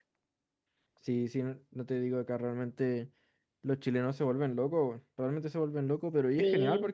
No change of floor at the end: Yes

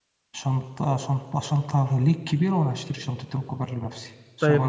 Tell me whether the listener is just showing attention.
No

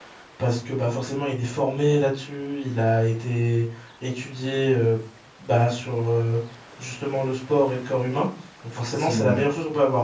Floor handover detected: No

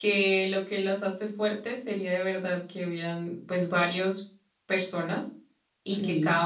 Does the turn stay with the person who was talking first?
Yes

